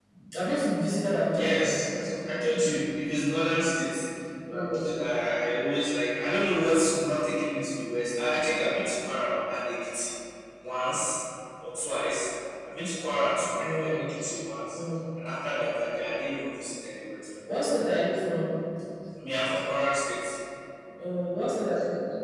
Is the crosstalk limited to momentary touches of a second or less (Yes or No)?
Yes